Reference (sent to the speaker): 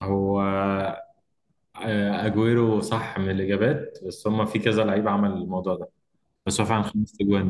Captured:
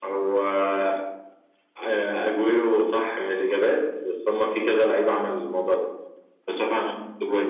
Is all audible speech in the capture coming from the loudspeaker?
Yes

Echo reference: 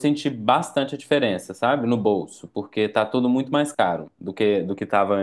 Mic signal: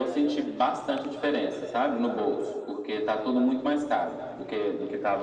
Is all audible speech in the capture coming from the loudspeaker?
Yes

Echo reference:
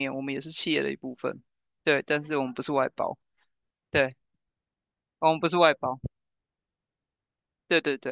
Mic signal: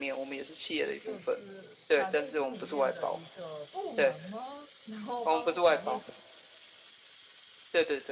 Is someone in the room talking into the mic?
Yes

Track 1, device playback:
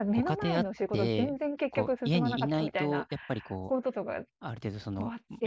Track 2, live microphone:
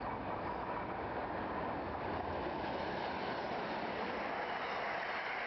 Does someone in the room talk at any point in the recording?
No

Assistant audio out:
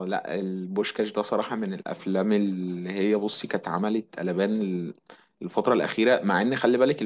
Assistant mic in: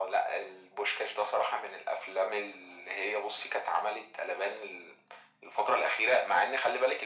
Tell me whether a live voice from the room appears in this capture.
No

